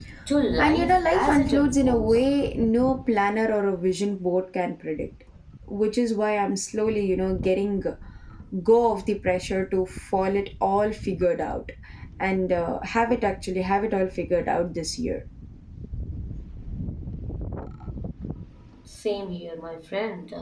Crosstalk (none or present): present